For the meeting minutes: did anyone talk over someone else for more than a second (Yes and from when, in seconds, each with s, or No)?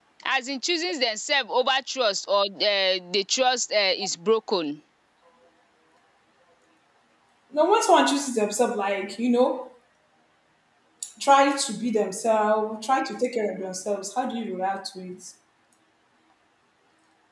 No